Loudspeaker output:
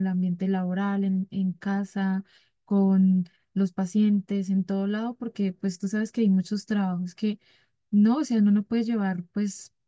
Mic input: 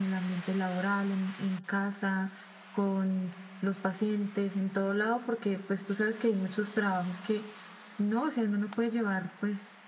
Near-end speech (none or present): none